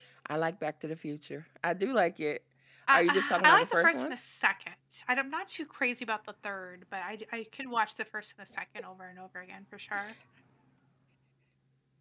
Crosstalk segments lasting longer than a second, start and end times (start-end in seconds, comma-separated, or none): 2.9-4.1